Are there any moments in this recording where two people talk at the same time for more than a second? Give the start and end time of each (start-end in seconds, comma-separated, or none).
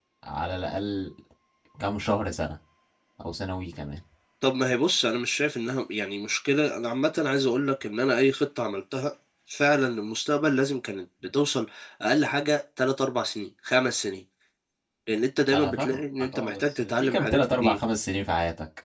15.5-17.8